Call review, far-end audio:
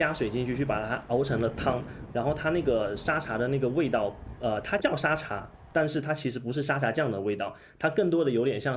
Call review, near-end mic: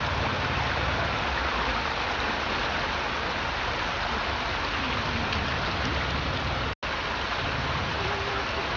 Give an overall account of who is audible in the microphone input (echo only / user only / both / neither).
neither